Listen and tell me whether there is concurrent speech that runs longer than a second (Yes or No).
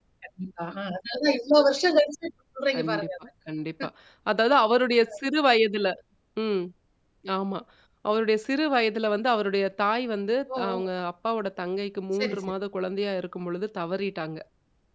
No